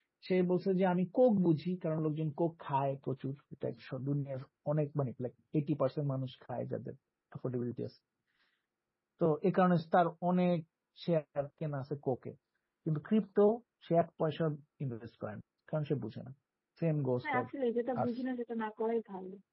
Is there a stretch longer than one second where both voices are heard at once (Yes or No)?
No